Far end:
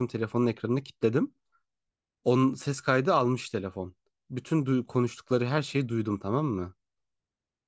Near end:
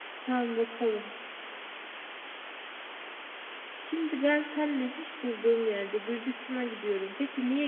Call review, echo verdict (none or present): none